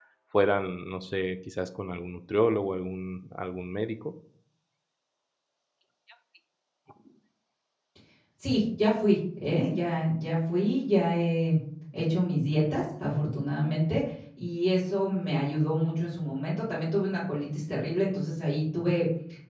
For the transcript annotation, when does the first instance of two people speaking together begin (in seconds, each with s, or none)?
none